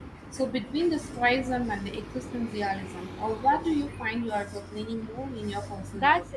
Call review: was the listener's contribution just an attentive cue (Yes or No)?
No